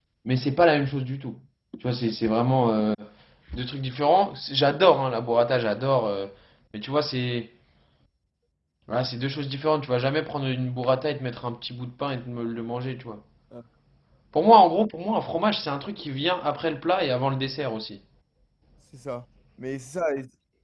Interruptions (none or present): none